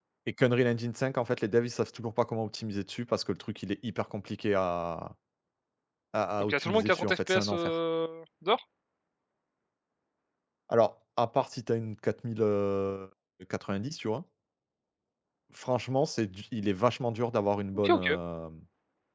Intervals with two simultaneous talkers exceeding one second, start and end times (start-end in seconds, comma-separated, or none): 6.4-7.7